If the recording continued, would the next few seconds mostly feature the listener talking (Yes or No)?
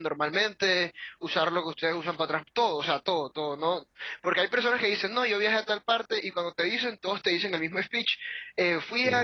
No